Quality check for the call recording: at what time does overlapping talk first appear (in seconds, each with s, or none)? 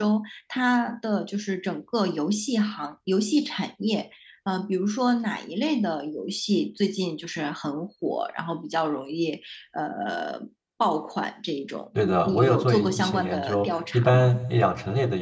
11.9 s